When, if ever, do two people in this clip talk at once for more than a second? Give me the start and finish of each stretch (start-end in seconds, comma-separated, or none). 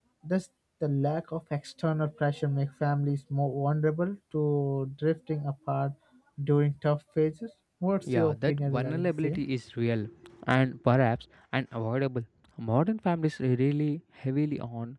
8.2-9.4